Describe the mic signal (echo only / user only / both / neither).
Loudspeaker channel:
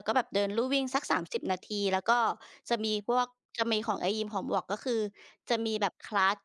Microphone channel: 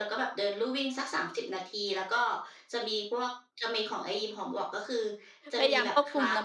both